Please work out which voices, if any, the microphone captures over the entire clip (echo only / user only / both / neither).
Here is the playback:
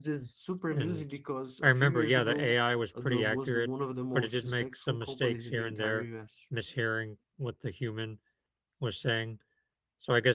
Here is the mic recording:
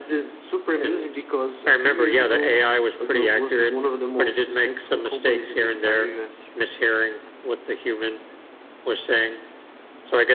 echo only